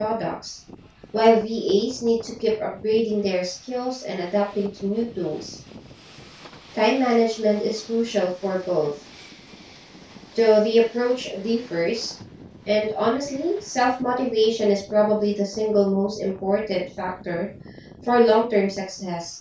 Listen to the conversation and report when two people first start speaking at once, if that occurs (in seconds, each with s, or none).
none